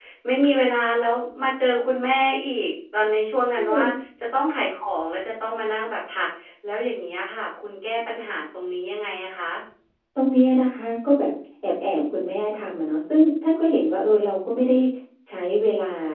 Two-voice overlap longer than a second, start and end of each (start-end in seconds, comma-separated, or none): none